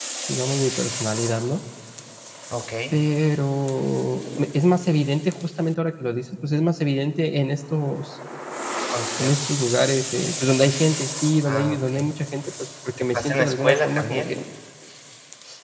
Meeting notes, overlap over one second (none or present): present